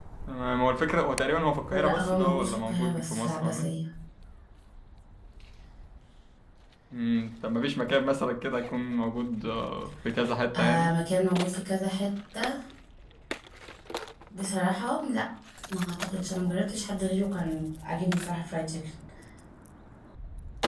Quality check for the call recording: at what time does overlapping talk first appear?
2 s

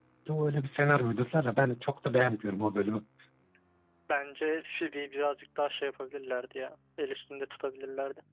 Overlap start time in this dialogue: none

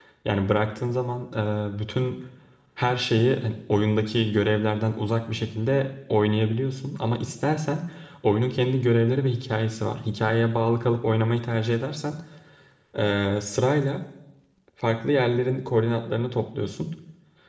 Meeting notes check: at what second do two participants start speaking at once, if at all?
none

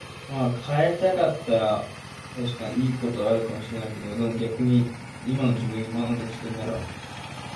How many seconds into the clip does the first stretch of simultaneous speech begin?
none

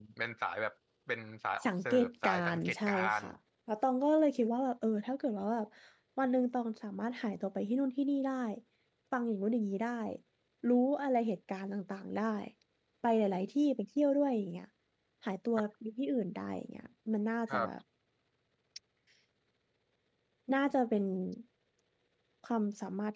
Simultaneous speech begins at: 2 s

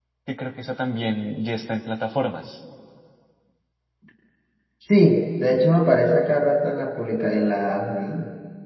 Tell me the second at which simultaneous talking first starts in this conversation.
none

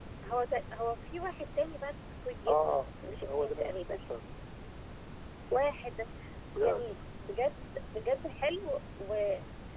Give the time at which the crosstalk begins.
2 s

